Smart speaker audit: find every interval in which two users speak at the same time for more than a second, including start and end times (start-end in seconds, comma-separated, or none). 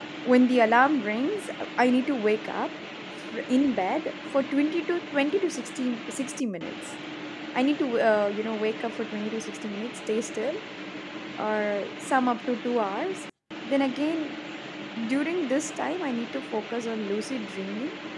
none